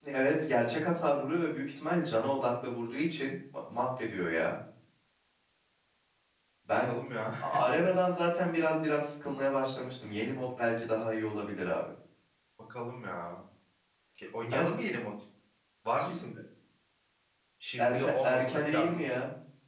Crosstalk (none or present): present